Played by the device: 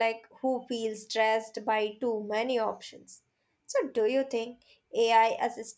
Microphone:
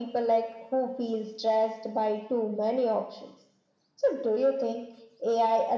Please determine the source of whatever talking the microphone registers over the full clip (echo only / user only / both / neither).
echo only